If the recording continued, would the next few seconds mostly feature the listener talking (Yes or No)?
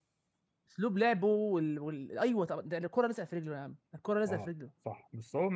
Yes